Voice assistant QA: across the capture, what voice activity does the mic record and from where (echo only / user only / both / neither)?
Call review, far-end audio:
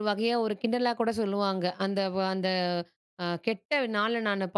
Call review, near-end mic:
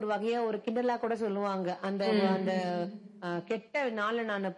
both